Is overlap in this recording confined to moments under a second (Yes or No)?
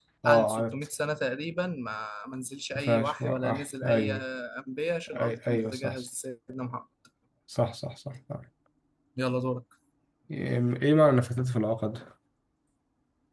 No